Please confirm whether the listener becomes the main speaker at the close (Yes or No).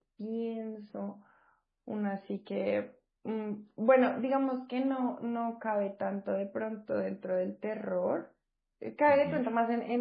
No